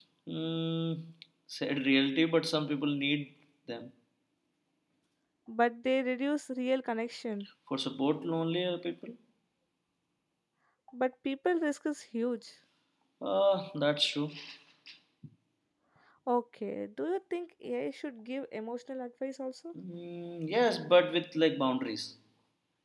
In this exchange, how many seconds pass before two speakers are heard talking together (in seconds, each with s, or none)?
none